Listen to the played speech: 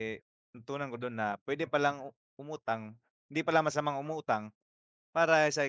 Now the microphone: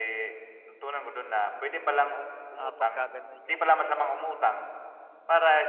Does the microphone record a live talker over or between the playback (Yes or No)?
Yes